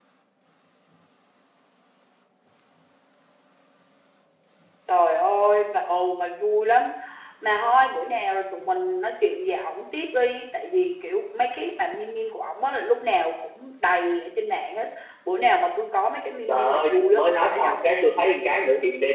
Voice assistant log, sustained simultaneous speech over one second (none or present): present